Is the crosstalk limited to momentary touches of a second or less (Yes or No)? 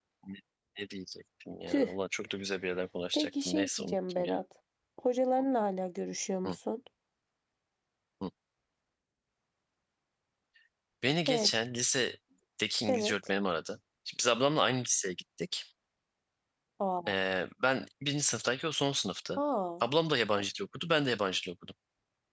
No